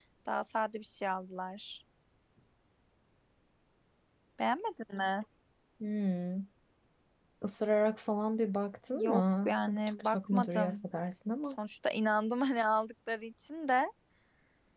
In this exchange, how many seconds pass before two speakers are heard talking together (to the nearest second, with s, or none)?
9 s